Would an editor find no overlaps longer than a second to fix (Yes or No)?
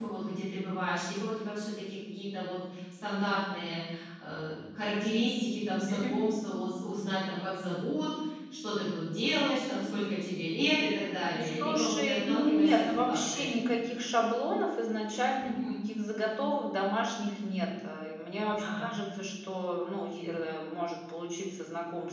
No